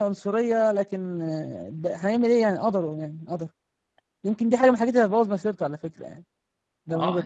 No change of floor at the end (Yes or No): No